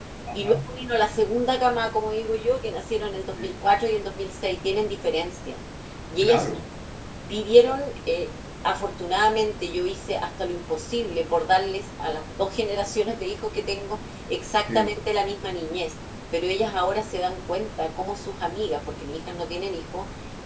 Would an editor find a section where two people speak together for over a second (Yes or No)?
No